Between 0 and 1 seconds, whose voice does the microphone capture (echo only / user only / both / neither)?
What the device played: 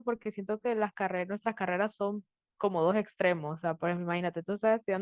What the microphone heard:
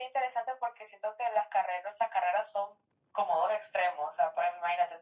echo only